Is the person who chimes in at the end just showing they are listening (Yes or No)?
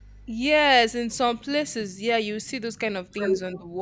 Yes